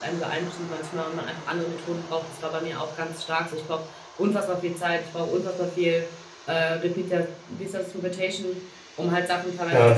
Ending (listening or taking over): listening